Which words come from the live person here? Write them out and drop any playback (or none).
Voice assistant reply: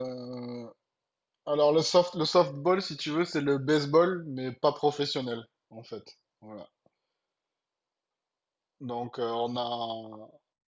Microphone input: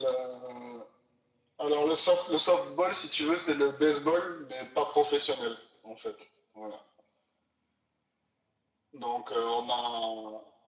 none